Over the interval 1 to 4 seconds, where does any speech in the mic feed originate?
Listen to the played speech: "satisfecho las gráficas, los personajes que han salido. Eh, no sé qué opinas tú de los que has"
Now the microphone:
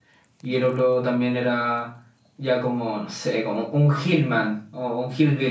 user only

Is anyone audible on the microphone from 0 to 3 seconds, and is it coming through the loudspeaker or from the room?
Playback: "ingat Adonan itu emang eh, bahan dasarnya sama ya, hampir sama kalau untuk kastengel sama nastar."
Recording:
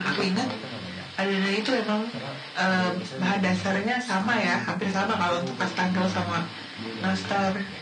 both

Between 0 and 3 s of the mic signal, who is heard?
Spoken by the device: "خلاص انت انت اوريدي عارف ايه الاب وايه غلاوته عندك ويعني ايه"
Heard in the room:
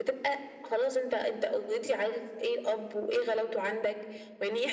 echo only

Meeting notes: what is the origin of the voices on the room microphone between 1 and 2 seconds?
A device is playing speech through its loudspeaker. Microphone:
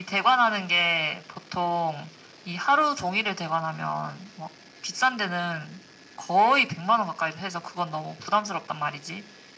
echo only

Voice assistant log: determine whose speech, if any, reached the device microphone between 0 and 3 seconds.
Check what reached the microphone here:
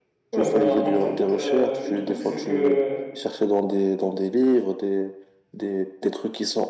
both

